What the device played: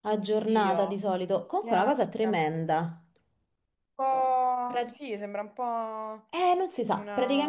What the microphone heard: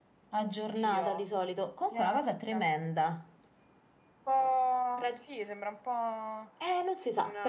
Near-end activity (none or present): none